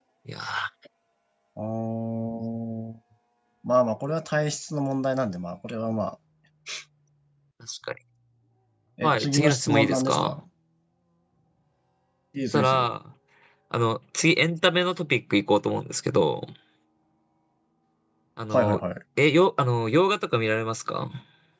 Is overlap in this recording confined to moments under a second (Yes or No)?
No